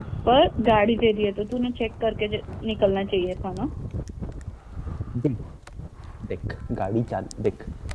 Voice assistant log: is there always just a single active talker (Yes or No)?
Yes